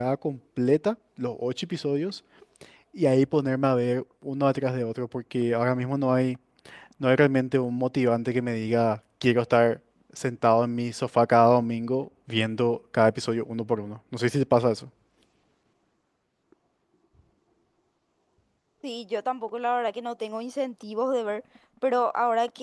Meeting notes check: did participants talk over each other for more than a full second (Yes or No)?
No